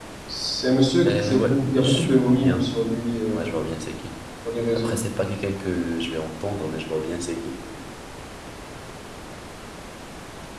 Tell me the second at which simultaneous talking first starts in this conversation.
1.1 s

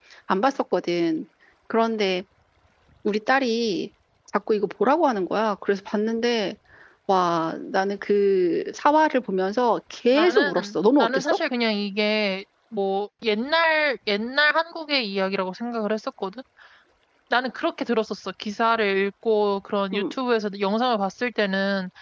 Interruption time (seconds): 10.1 s

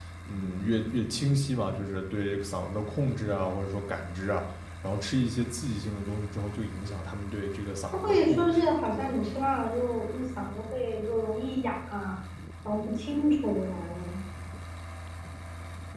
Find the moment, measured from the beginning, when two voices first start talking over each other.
7.9 s

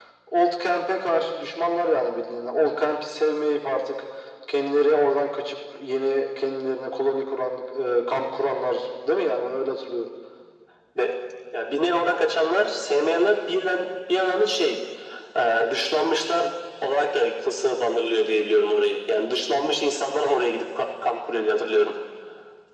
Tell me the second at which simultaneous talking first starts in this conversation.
none

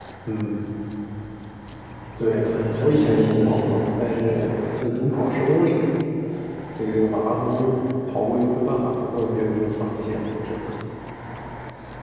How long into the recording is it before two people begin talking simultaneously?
2.2 s

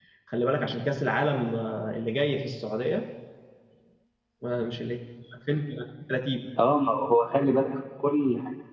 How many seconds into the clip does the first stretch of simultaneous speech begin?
none

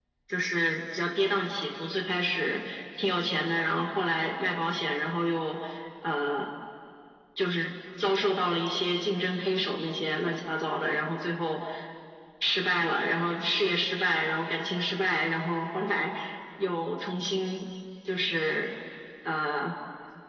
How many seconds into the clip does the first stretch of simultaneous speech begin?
none

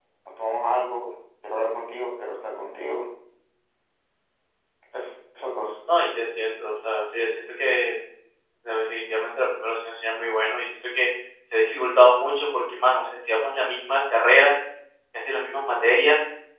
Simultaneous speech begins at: none

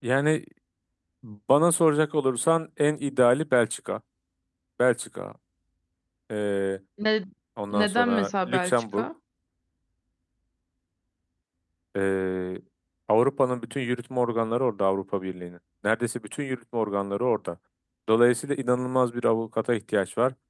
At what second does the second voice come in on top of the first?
7.7 s

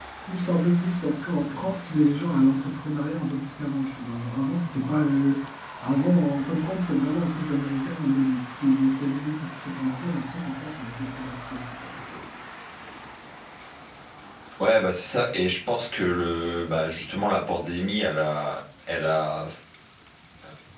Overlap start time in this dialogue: none

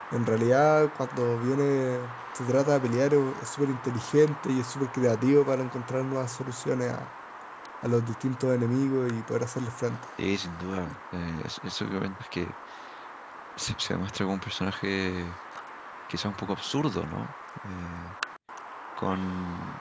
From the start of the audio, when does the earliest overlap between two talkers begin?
none

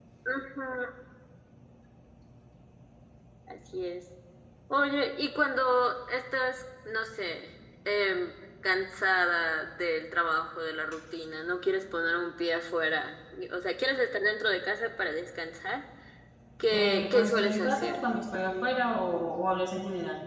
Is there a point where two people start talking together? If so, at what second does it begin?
16.7 s

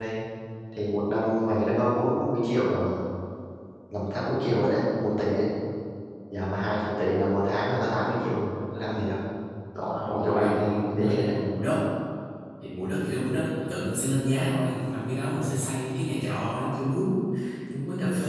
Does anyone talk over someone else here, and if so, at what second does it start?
9.9 s

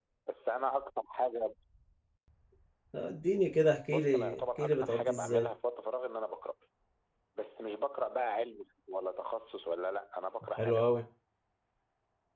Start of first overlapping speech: 3.9 s

